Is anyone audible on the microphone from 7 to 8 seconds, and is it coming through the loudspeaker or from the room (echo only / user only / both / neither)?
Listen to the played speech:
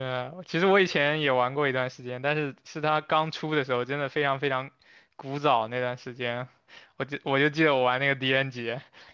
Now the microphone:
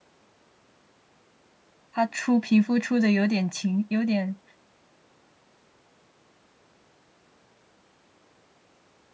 neither